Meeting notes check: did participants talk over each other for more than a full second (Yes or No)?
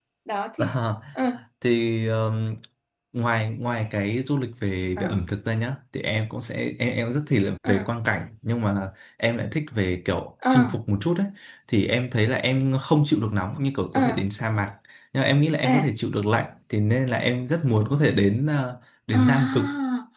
No